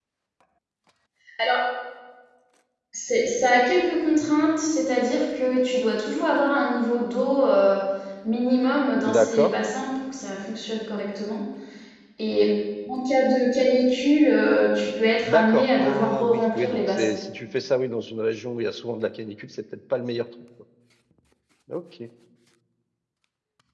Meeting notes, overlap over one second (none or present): present